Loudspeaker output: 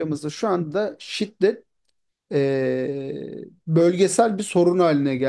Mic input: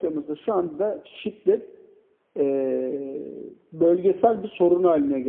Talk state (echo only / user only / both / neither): echo only